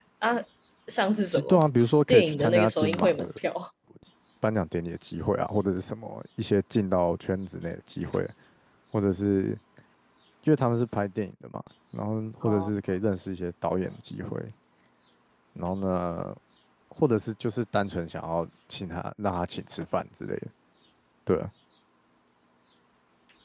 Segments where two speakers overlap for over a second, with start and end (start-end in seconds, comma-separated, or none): 2.1-3.3